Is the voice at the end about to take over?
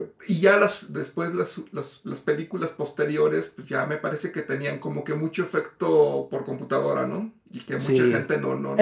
Yes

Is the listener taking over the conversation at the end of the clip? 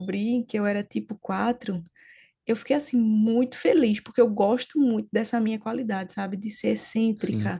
No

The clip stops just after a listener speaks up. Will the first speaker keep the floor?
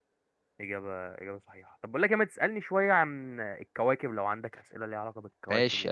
No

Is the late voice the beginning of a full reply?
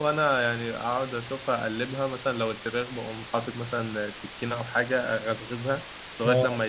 No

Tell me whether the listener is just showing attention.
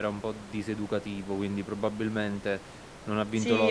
No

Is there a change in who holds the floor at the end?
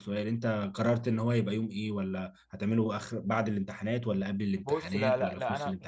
Yes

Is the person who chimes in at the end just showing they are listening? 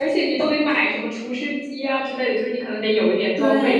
No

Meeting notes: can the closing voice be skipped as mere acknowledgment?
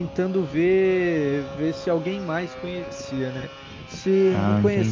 Yes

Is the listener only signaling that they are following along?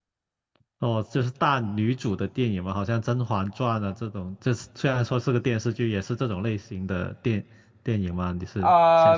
No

